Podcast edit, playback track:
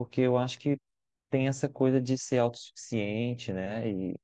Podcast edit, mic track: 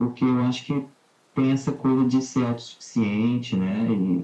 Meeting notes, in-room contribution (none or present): none